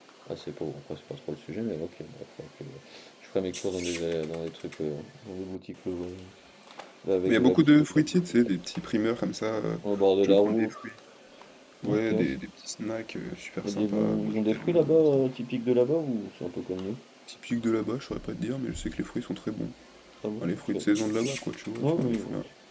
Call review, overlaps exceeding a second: present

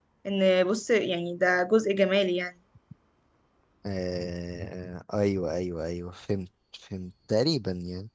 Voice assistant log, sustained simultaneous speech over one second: none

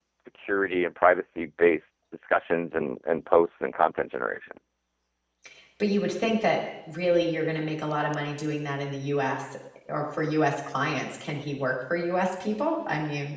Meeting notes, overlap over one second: none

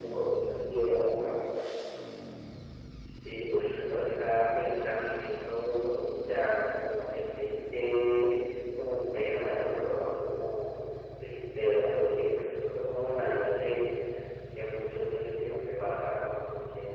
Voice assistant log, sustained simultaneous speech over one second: none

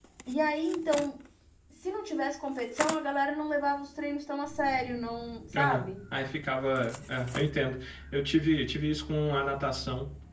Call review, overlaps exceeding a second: none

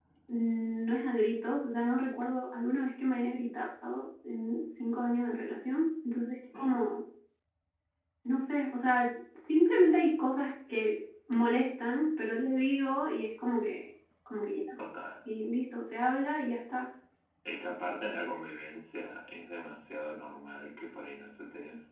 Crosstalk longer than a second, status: none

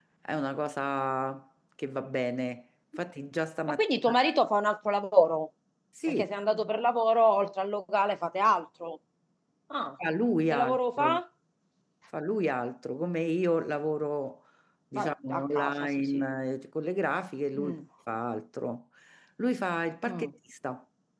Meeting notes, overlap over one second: present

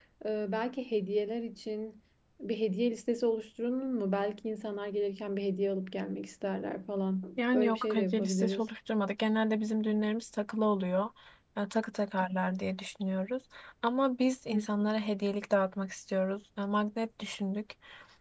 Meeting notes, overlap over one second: present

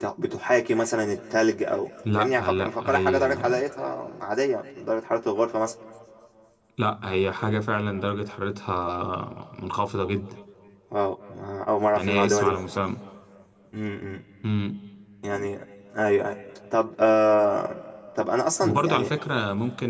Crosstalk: present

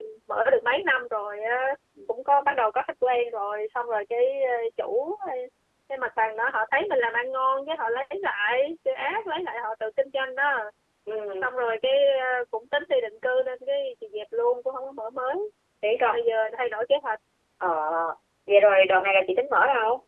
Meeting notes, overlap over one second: none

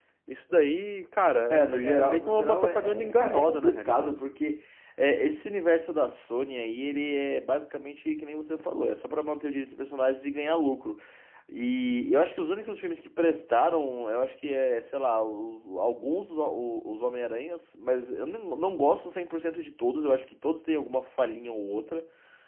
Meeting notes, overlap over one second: present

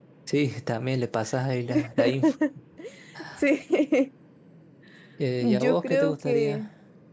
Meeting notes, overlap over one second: present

